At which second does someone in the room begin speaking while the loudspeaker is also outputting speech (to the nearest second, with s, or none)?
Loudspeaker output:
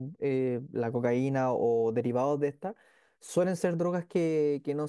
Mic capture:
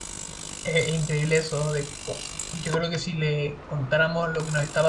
1 s